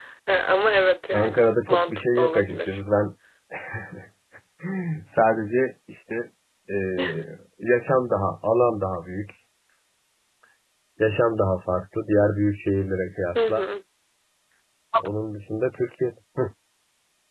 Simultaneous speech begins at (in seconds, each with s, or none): 1.1 s